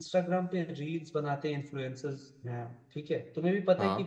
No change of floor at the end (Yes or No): Yes